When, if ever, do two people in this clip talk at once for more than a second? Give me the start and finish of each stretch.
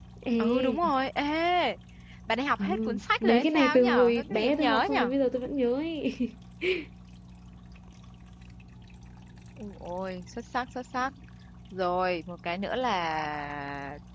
3.2-5.1

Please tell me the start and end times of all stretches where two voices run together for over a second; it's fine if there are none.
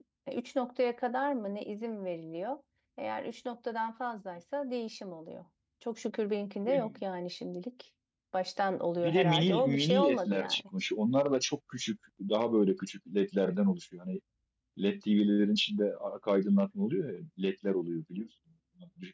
9.0-10.6

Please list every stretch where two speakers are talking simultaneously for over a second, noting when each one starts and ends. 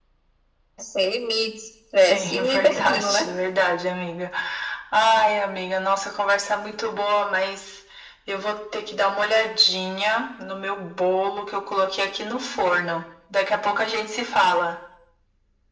2.0-3.2

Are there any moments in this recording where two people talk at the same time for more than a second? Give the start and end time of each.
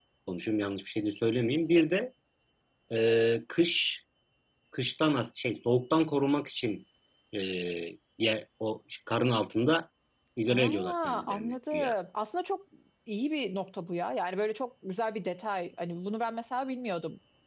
10.5-11.9

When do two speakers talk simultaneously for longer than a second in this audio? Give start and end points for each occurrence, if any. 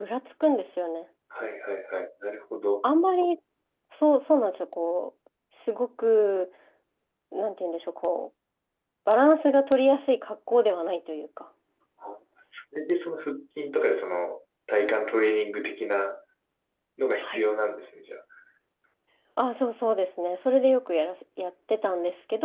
none

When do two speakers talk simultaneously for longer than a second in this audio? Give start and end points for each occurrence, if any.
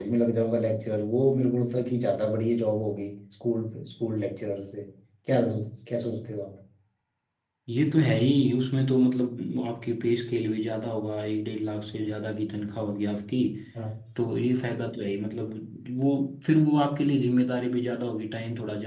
none

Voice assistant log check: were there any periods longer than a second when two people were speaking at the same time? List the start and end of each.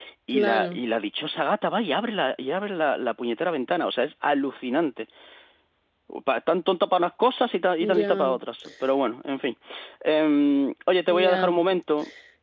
none

